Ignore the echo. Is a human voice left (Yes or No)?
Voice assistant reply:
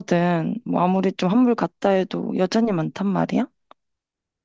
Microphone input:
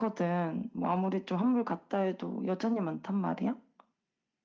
No